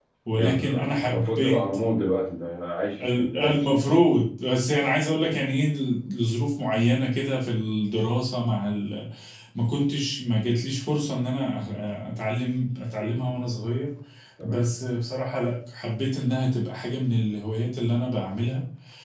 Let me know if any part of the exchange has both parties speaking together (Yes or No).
Yes